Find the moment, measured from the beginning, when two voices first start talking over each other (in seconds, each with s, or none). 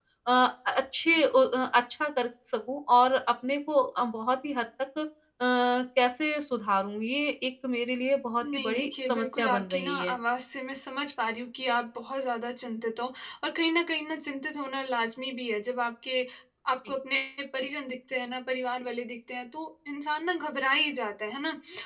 8.4 s